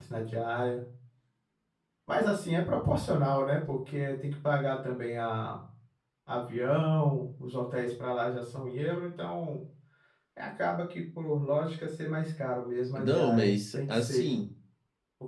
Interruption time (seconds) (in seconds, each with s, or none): 12.9 s